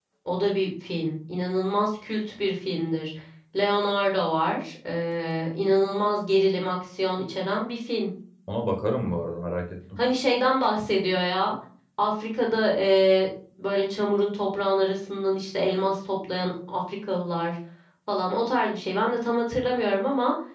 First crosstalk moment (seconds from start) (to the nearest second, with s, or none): none